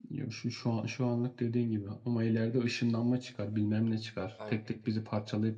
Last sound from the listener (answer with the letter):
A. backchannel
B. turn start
A